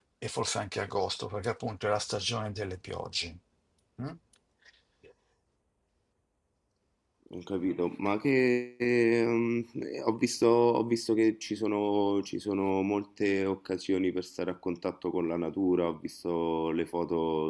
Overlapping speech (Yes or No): No